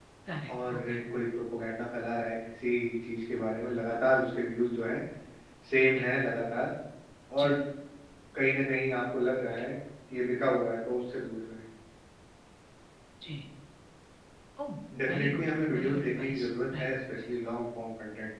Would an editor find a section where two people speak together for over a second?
Yes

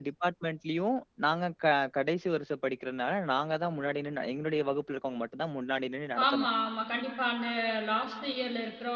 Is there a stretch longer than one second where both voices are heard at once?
No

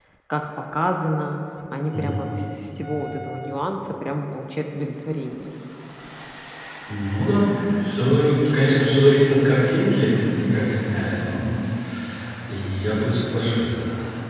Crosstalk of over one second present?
No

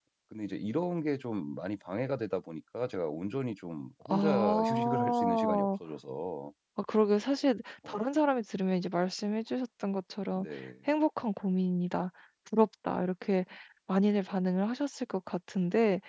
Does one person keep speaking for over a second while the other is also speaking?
Yes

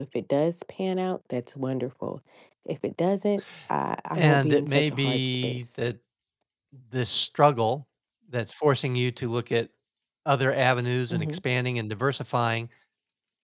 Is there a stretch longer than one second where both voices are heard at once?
Yes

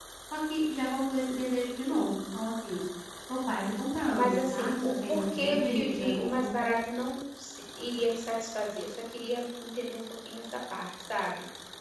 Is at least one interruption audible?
Yes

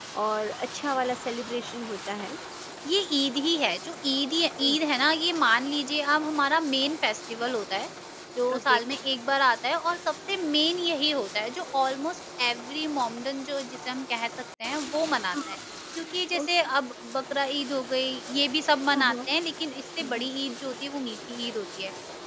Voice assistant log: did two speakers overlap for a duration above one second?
No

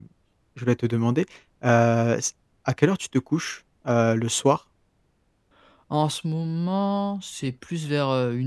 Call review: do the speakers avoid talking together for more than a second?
Yes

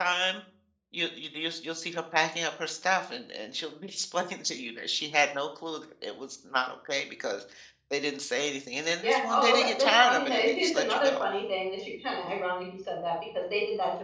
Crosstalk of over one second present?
Yes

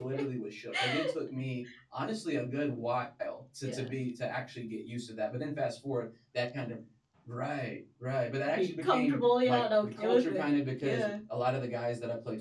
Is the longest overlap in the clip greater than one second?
Yes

